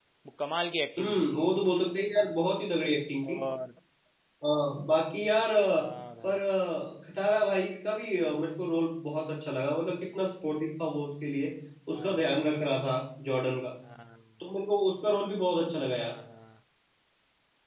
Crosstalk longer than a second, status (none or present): none